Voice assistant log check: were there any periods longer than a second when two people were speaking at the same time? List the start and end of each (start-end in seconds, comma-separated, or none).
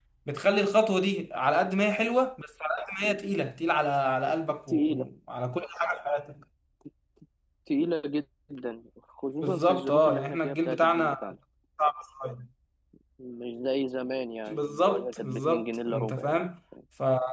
9.4-11.3, 14.5-16.4